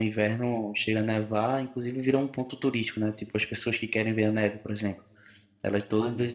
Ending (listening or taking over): listening